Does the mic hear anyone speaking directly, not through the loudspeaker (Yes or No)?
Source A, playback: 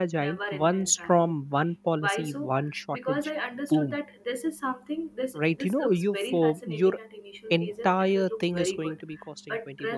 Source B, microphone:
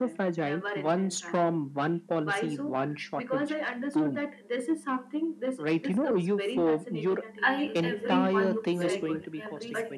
Yes